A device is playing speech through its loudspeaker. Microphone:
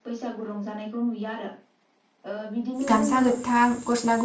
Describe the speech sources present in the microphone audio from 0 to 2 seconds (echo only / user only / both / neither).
echo only